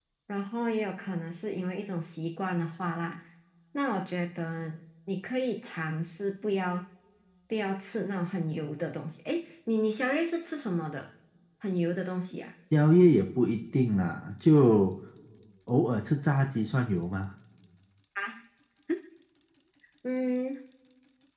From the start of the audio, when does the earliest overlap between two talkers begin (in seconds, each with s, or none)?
none